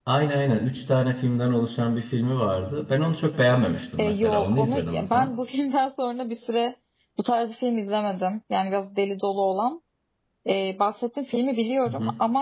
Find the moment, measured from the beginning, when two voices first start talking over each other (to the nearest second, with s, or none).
4 s